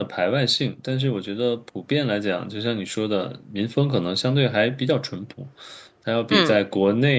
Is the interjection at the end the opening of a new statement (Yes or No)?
No